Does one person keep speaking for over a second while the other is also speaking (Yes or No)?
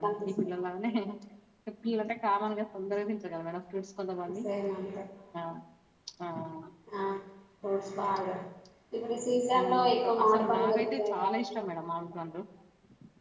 Yes